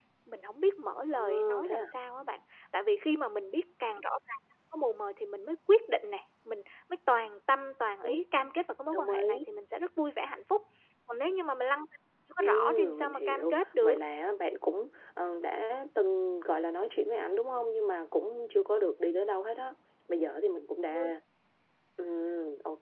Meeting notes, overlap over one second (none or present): present